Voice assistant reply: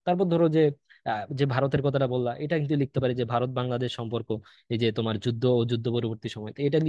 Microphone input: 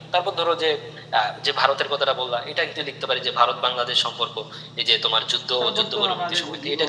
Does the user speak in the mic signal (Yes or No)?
Yes